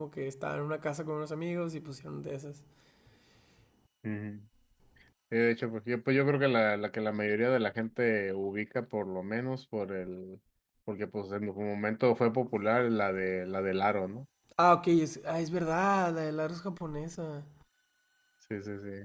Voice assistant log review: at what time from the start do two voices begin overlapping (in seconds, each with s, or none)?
none